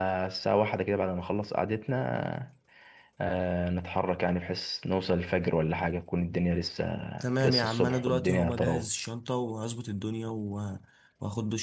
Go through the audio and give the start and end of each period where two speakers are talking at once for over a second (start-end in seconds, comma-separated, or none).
7.4-8.9